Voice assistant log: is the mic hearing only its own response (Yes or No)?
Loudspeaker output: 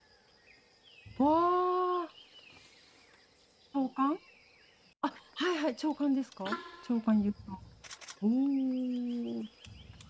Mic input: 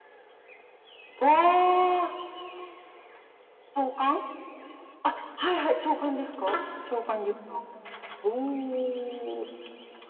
Yes